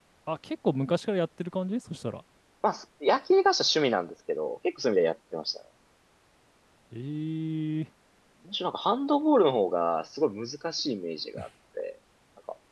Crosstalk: none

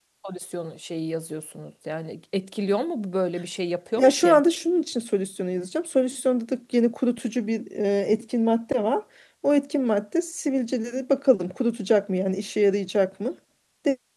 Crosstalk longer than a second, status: none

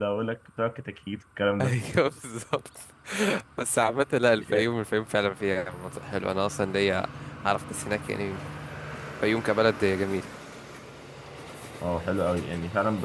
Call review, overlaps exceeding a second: none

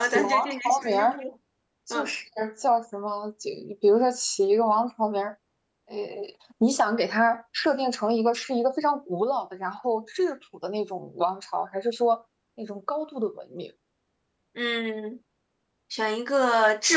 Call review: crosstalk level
present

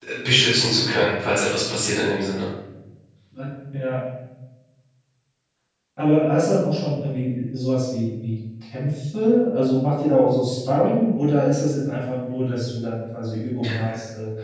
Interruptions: none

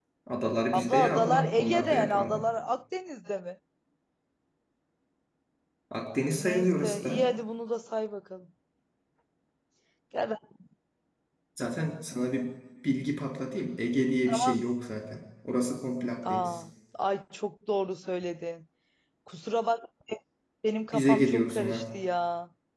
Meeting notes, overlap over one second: present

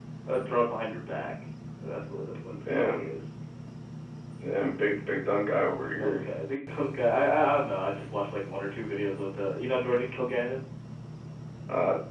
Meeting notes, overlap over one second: none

